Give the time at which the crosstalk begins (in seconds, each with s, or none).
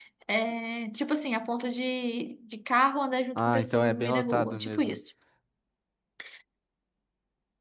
3.4 s